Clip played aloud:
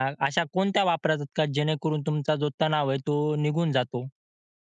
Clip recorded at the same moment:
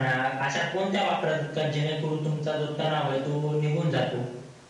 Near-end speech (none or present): none